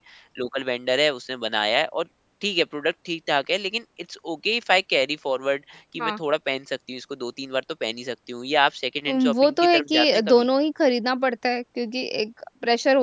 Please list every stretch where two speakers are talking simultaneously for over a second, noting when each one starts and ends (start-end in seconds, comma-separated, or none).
9.1-10.5